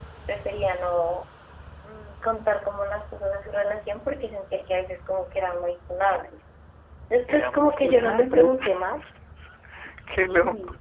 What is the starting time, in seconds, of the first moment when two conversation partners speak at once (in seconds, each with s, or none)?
7.3 s